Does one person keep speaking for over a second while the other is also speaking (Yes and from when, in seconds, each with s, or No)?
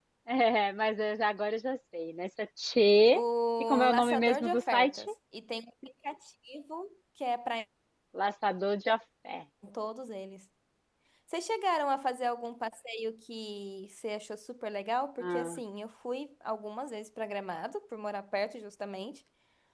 Yes, from 3.6 s